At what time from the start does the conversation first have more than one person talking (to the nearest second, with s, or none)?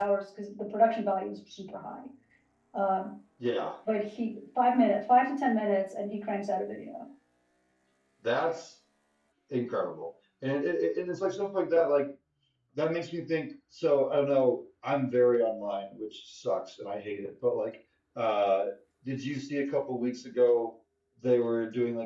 none